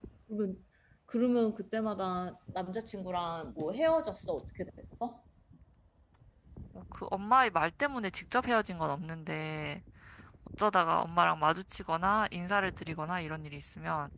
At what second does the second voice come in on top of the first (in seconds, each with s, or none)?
none